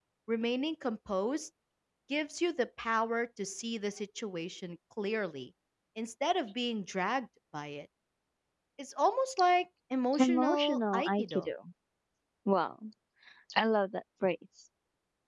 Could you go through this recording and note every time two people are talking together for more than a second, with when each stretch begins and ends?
10.2-11.5

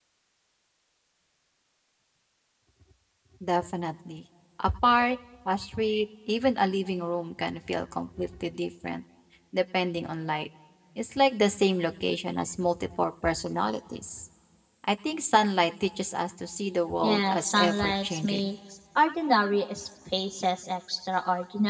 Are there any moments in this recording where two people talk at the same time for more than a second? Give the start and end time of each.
17.0-18.5

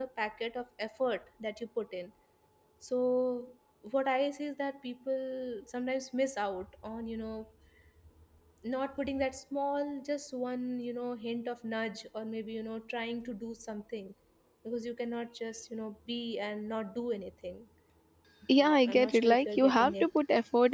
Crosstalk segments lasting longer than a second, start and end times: 18.6-20.1

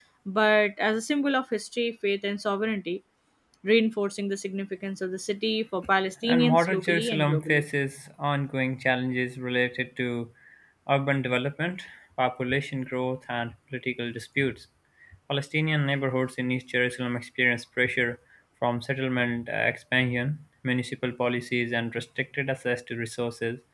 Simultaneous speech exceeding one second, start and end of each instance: 6.2-7.6

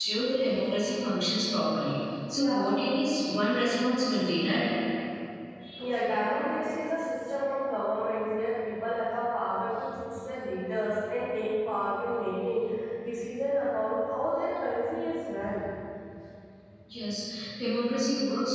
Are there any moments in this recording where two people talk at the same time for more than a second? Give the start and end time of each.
none

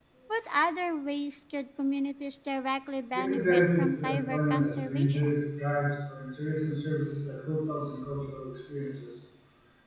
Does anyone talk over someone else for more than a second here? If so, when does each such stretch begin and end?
3.1-5.4

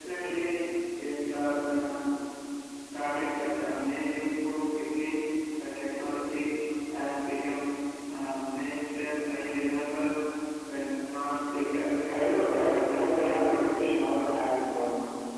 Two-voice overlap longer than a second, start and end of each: 12.1-14.1

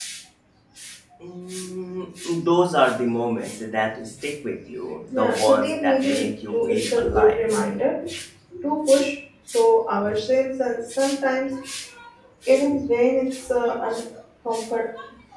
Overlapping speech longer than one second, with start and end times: 5.1-7.6

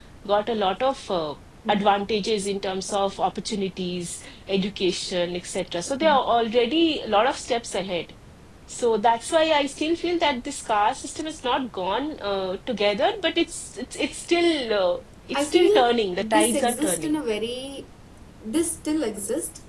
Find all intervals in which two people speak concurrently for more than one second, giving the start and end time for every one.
15.3-17.1

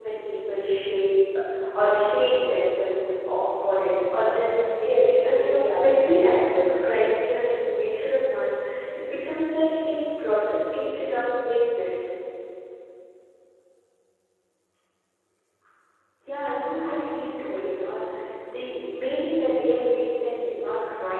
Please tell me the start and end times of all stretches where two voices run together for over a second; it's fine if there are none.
4.8-6.6

